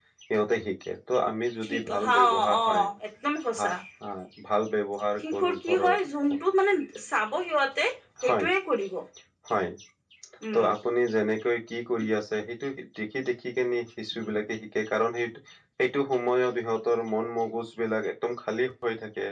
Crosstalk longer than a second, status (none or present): present